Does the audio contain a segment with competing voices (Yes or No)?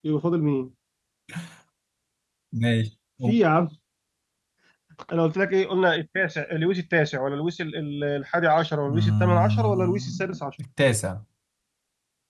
Yes